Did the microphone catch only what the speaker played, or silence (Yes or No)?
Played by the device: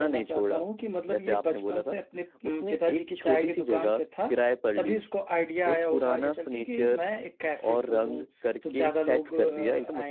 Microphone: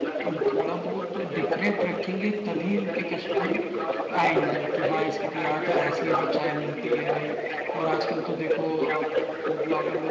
No